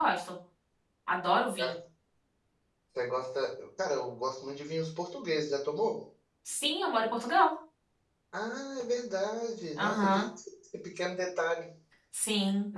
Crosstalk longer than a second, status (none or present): none